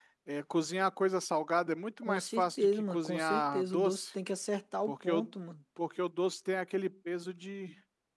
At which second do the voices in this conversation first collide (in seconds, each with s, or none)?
2.0 s